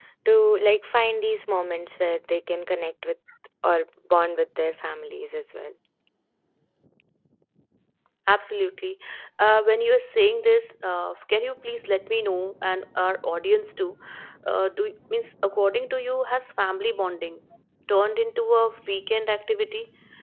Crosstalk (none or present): none